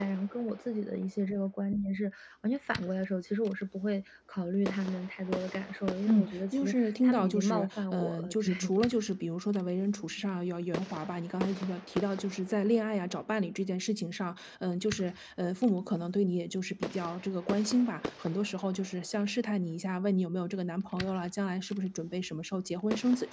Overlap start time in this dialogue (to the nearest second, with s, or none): 6 s